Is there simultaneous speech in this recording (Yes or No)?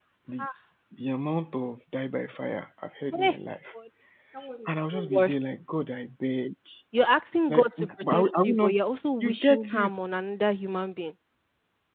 Yes